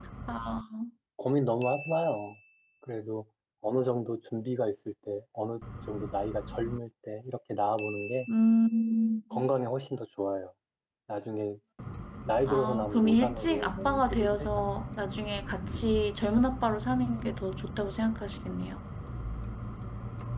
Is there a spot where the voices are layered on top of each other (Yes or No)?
Yes